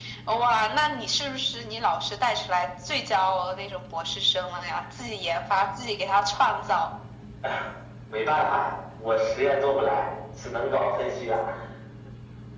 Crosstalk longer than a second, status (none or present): none